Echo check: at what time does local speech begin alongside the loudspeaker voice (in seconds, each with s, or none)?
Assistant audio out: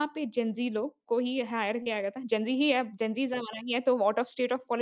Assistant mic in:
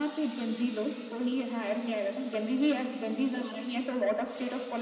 none